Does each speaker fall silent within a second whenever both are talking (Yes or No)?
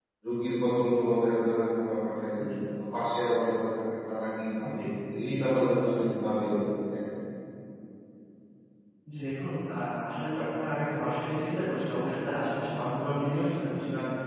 Yes